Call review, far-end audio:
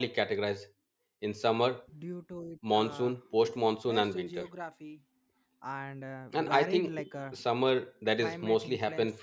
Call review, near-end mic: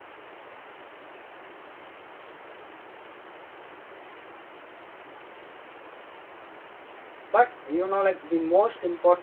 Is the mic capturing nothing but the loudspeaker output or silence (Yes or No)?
No